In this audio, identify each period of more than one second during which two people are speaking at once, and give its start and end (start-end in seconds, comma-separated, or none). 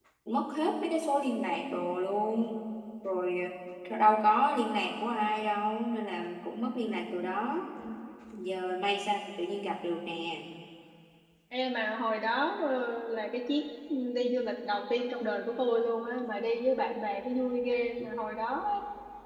none